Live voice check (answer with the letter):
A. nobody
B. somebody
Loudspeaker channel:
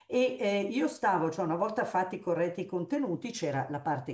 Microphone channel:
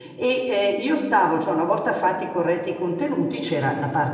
A